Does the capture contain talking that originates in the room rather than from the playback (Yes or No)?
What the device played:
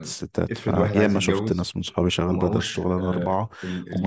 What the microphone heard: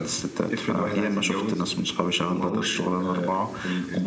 No